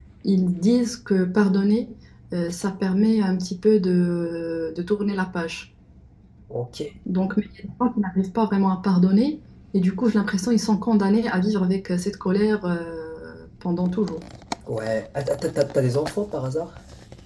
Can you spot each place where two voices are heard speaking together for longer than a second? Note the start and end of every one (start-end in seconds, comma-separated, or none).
none